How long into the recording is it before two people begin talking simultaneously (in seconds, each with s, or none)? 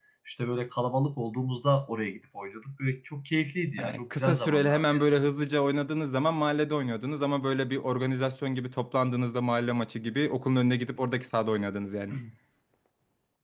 3.8 s